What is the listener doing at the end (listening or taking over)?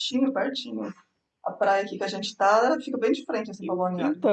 taking over